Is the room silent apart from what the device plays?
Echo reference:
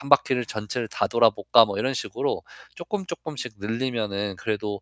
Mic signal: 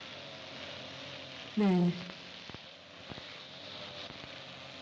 No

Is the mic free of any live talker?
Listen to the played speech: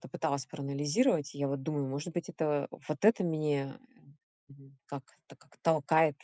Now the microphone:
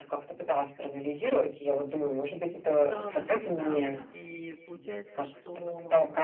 No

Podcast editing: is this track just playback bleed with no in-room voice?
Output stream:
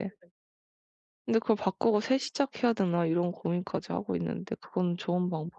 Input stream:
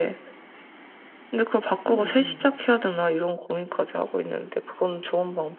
No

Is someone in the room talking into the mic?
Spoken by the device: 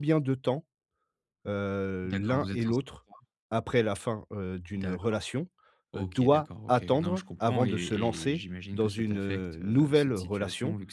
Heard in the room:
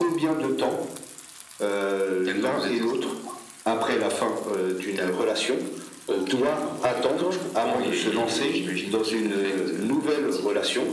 No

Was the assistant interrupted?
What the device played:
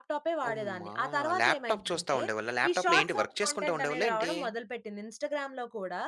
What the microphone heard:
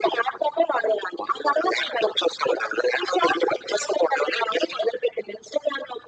No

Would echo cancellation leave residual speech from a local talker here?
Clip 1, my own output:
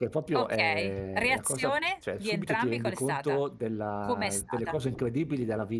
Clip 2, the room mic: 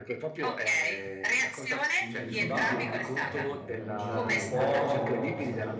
Yes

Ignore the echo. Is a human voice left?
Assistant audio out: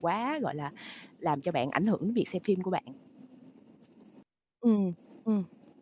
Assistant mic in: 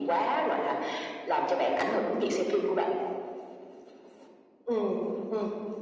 No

